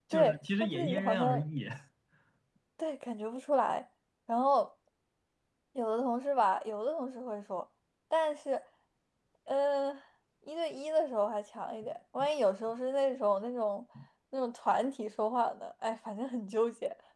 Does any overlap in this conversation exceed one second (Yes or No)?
Yes